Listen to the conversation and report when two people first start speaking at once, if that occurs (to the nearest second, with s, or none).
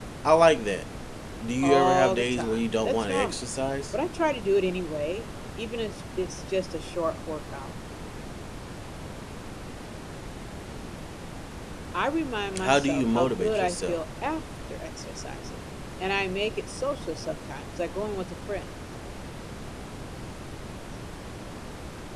2 s